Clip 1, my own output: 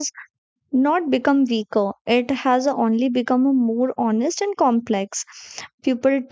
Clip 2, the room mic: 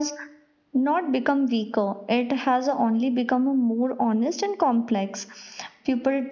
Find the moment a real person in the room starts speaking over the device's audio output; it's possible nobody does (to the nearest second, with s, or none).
none